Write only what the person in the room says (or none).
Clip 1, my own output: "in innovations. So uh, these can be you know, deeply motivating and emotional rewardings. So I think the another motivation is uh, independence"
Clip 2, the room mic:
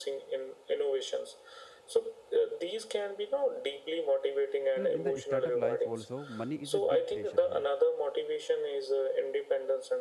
you know, in the startup life also, money is a big pressure here